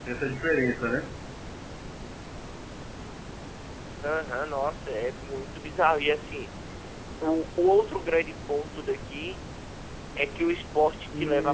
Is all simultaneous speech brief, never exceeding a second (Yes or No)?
Yes